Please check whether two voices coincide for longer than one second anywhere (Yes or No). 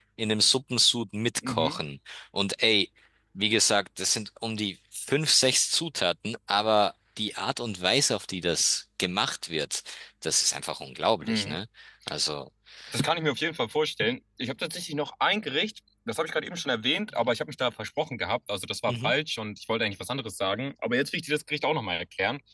No